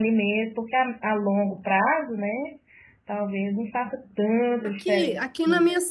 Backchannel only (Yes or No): No